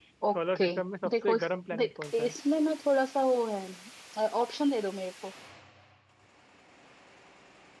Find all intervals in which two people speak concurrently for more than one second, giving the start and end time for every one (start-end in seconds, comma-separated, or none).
1.1-2.3